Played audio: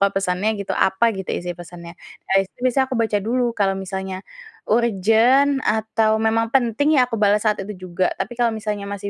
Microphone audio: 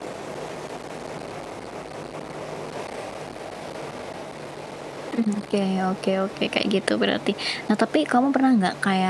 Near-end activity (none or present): present